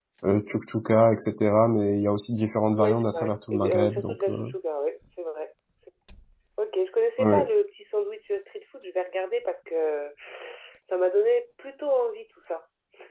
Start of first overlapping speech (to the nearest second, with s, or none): 3 s